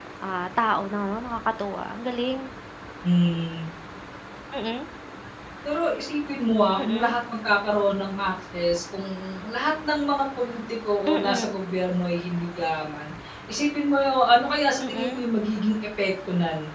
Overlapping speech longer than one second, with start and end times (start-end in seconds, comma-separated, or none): none